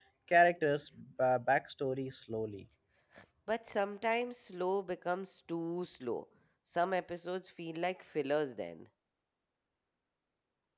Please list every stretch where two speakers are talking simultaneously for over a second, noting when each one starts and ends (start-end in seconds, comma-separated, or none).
none